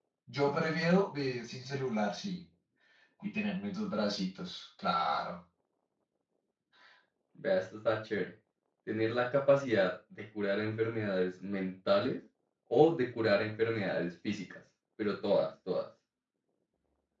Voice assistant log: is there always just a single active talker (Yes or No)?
Yes